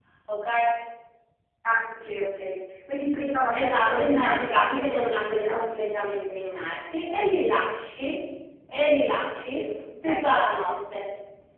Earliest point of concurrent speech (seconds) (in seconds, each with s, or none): 3.5 s